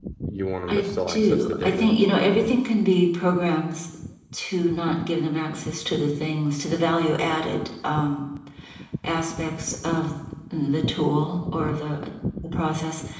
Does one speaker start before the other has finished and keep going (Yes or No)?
Yes